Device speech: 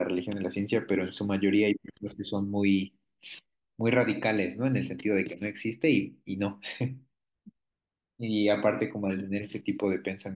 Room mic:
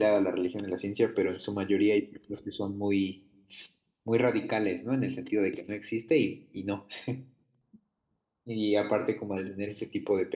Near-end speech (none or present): none